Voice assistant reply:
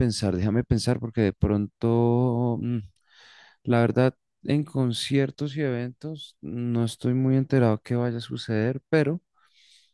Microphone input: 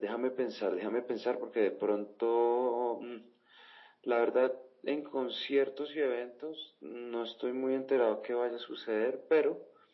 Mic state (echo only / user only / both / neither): echo only